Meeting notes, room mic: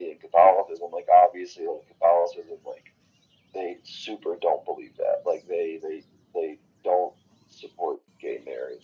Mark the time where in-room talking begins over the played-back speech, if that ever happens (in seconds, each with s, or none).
none